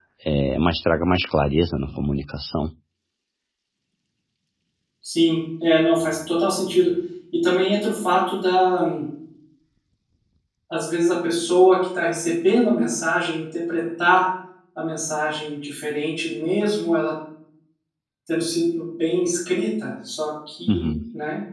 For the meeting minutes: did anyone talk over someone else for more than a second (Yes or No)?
No